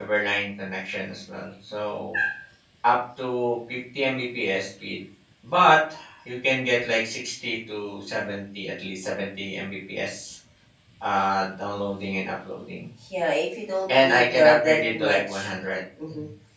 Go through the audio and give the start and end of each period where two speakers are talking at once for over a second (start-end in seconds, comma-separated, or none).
14.0-15.5